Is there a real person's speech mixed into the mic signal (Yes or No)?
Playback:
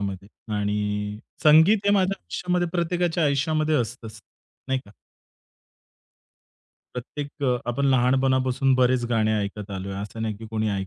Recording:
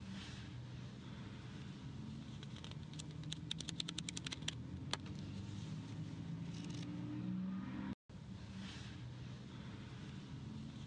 No